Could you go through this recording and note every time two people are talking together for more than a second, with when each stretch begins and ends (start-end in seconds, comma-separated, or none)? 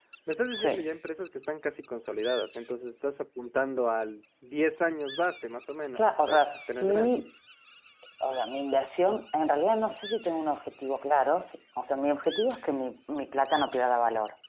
6.0-7.2